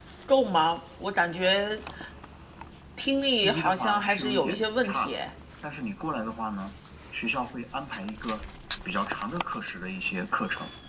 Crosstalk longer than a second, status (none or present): present